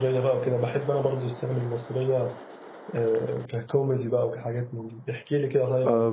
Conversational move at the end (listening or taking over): taking over